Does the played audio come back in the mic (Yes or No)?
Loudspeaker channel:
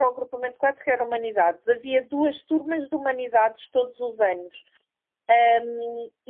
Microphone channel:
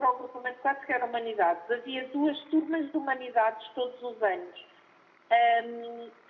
Yes